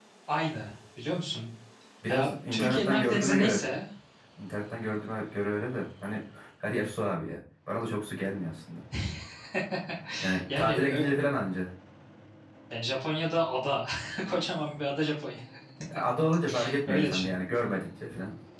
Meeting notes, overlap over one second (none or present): present